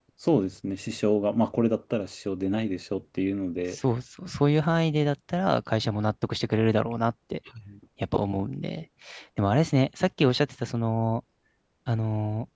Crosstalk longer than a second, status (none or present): none